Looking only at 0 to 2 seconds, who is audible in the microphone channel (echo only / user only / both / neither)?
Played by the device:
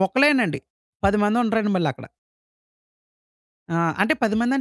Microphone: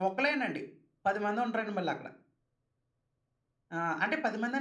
echo only